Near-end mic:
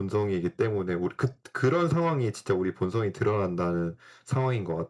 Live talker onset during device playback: none

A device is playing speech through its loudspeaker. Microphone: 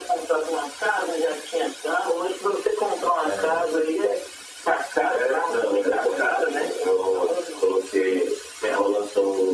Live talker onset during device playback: 3.2 s

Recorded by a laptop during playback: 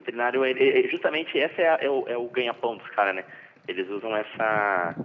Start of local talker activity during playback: none

